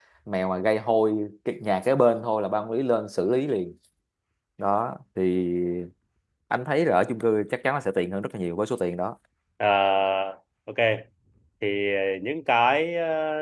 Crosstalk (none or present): none